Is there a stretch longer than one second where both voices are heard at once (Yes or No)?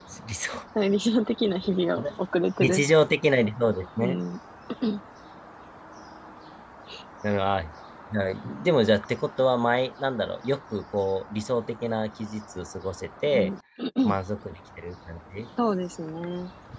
No